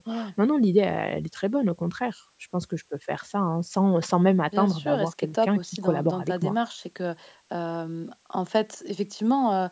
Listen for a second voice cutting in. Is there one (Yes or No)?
Yes